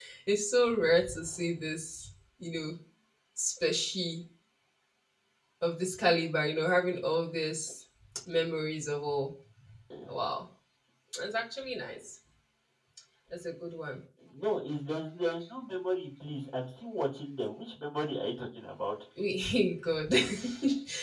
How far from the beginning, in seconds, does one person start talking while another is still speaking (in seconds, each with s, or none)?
none